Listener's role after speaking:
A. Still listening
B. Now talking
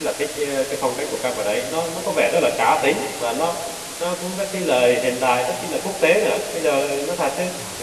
A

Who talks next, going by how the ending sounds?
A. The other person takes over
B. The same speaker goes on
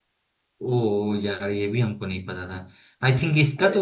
B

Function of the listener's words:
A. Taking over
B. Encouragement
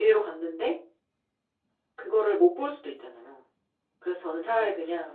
B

